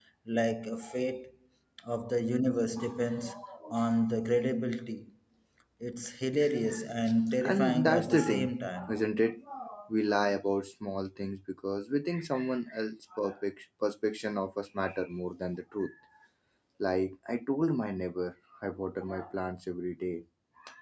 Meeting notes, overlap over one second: present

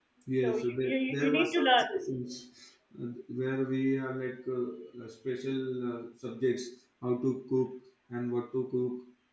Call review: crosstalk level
present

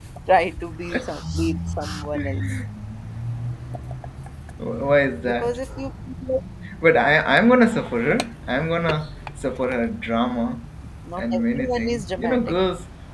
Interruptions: present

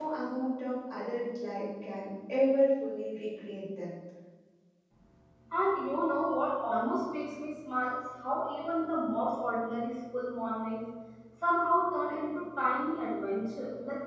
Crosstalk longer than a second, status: none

